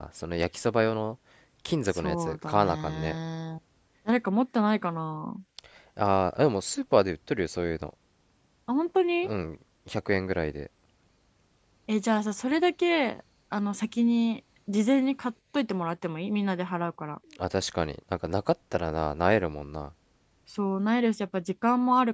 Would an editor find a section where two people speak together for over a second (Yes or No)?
Yes